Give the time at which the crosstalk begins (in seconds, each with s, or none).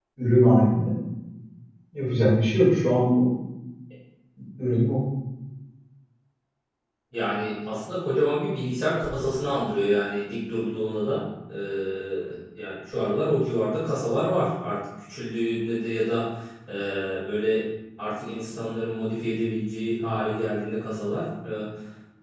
none